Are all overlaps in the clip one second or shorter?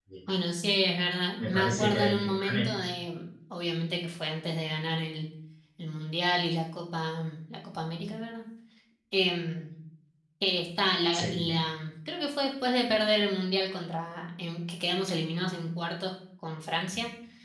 No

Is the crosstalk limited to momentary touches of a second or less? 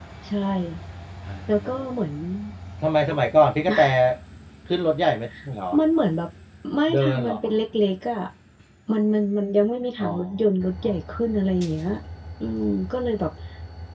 Yes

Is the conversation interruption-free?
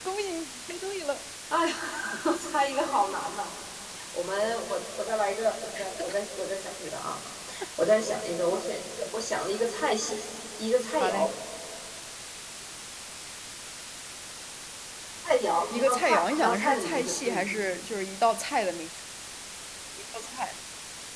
No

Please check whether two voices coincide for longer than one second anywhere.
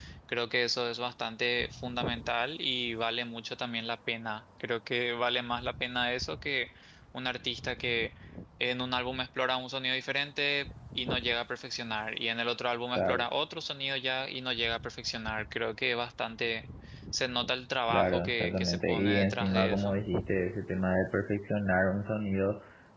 Yes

